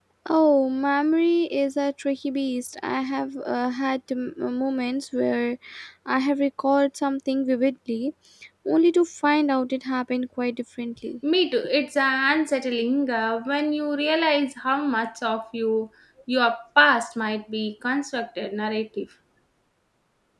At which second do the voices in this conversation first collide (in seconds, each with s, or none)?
none